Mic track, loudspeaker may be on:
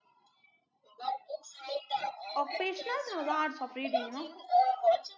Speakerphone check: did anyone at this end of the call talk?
Yes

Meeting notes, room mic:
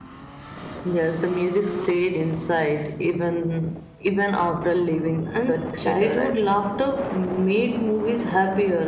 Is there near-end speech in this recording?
Yes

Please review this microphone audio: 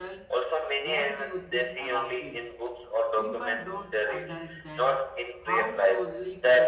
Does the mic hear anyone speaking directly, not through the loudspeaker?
Yes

